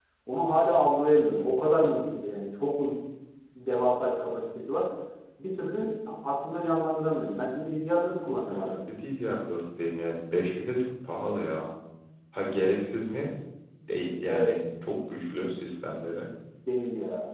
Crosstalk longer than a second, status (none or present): none